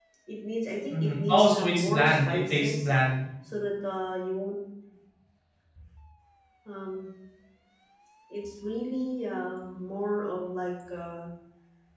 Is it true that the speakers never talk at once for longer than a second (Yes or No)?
No